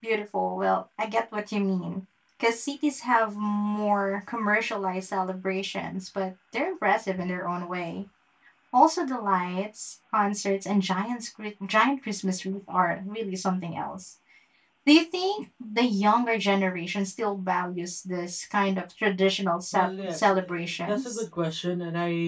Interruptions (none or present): present